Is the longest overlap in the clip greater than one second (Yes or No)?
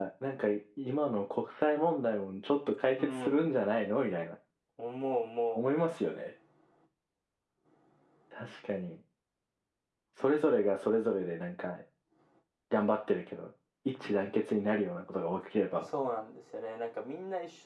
No